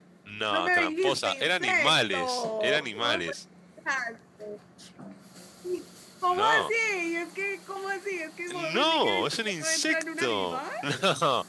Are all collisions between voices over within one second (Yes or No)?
No